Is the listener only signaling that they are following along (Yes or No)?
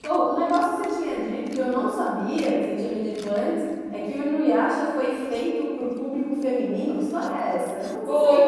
No